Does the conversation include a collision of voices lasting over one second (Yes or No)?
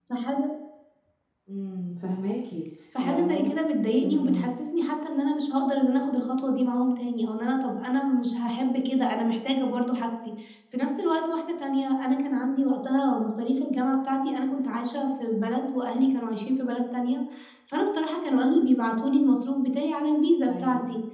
No